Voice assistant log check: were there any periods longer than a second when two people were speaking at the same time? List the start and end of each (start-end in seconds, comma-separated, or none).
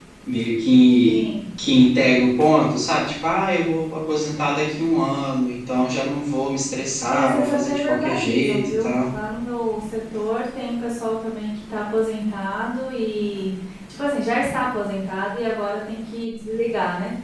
7.1-9.0